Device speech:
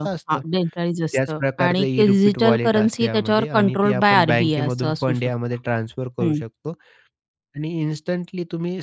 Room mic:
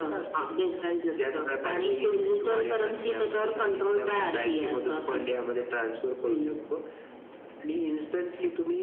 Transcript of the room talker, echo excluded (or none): none